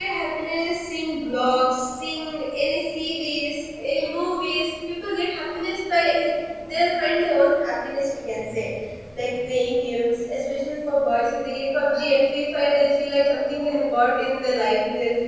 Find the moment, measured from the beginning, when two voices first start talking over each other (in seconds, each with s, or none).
none